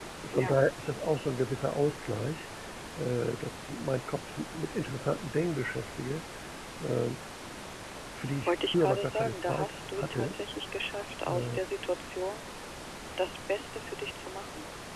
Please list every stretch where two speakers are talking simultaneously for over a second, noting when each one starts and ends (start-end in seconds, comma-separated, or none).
8.4-10.3